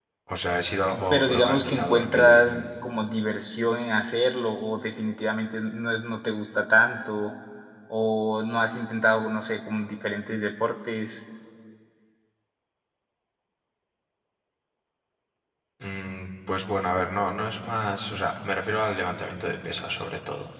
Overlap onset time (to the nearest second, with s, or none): 1 s